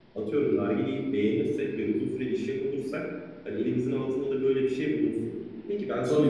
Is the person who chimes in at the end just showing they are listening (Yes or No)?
No